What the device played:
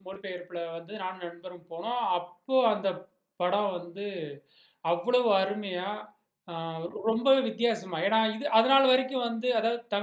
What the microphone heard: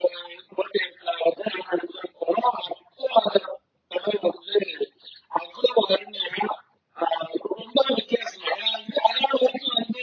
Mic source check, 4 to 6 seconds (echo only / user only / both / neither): echo only